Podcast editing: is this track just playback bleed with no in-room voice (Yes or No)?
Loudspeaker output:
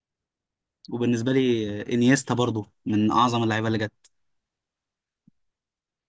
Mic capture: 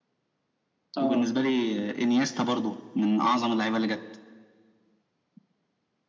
No